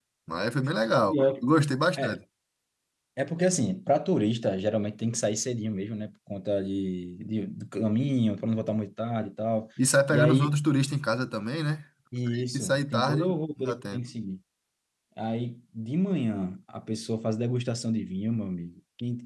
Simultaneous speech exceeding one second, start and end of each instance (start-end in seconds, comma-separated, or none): 12.3-14.0